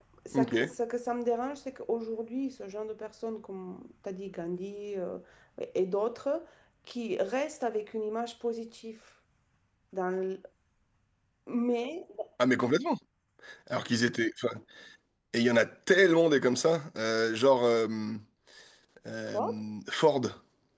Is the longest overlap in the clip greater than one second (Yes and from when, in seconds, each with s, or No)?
No